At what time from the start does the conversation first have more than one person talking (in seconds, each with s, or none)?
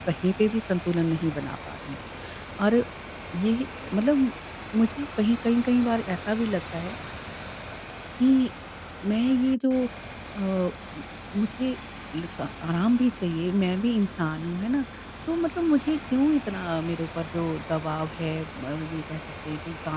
none